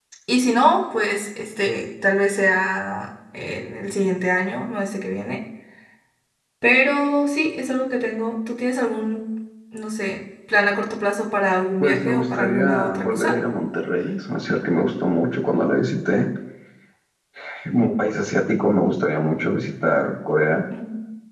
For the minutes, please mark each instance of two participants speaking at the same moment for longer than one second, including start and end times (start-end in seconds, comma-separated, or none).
11.8-13.3